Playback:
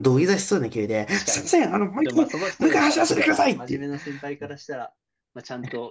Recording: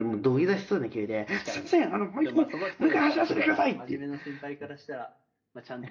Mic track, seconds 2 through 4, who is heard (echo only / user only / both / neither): echo only